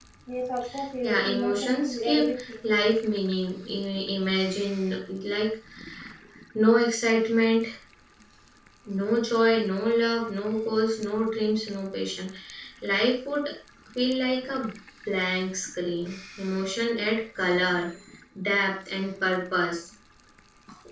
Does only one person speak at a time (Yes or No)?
No